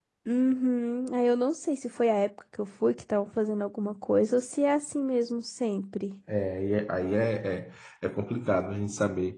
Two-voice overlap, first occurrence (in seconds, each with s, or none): none